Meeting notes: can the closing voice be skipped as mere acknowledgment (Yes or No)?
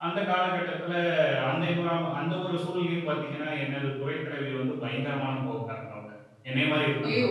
Yes